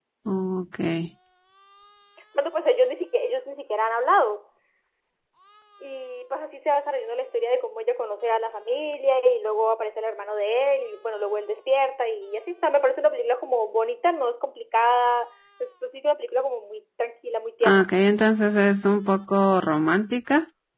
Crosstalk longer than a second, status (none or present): none